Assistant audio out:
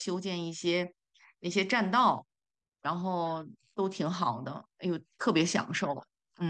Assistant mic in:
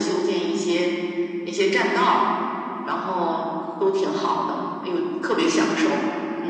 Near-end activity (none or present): none